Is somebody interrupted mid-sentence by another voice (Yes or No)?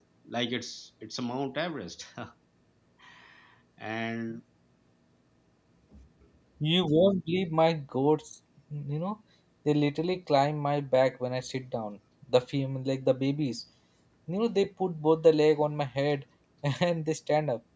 No